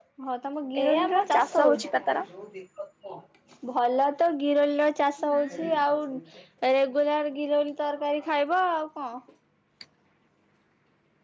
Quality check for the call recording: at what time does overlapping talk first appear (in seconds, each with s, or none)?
0.8 s